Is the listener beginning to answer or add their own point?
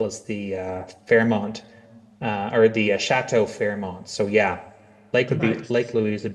No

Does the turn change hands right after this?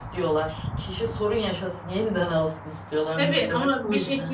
Yes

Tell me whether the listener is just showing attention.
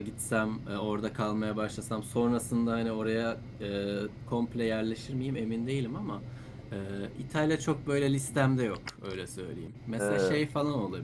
Yes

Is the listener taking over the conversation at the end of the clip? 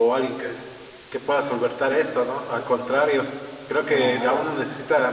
No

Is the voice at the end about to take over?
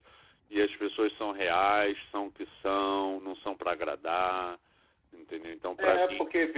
Yes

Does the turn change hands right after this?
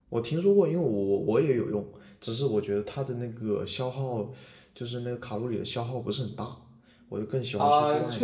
Yes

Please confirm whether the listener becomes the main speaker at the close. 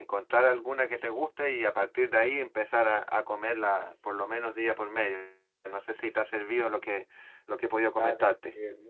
Yes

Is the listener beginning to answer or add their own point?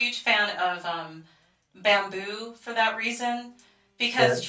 No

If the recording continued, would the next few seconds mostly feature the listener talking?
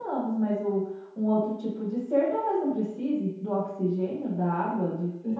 Yes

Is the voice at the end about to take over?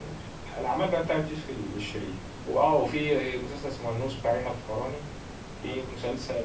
No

